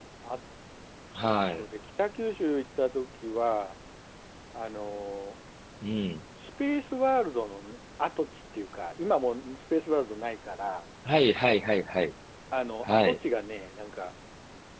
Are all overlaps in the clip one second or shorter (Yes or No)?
Yes